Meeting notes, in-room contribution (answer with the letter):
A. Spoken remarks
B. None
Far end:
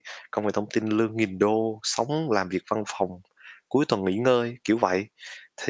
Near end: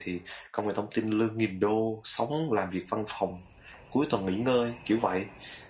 B